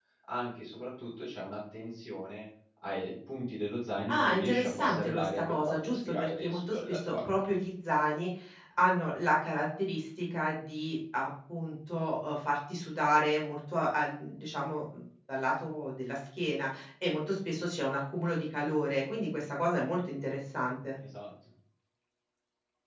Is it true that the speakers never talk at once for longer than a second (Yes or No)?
No